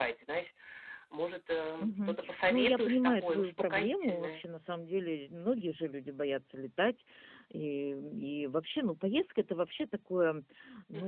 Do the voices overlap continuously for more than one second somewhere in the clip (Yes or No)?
Yes